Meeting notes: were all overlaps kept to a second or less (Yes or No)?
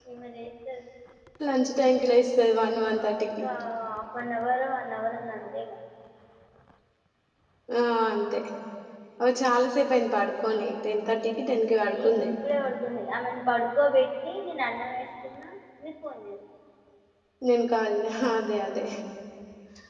Yes